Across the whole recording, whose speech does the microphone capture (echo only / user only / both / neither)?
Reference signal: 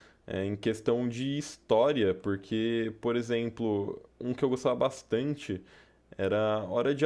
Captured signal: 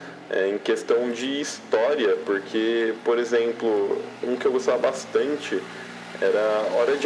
echo only